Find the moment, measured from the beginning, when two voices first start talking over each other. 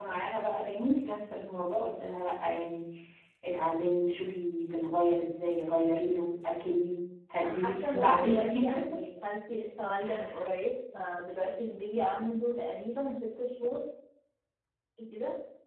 7.4 s

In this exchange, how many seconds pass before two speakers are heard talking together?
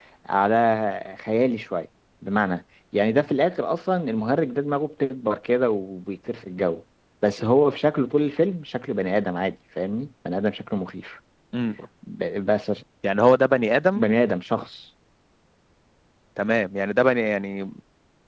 none

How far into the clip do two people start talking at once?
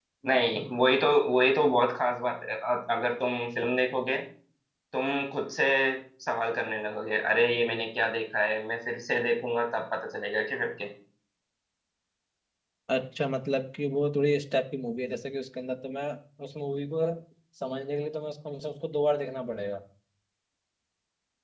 none

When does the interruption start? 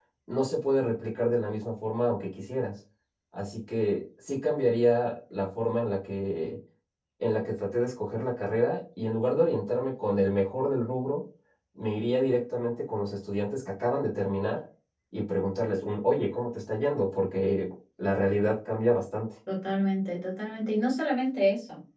none

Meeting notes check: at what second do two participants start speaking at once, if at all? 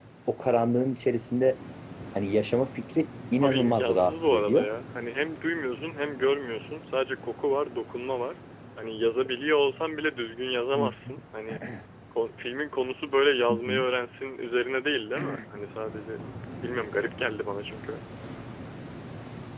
3.4 s

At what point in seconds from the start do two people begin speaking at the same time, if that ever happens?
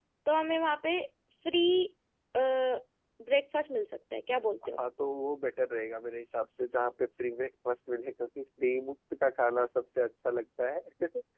none

